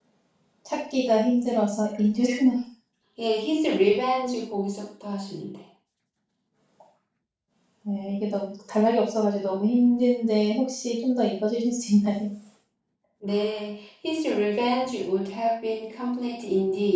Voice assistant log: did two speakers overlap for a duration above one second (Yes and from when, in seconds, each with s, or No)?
No